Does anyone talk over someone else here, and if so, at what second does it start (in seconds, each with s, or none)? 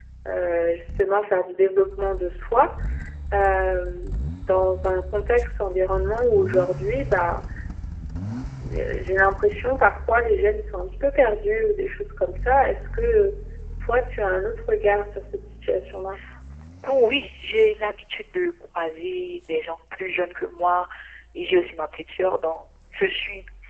none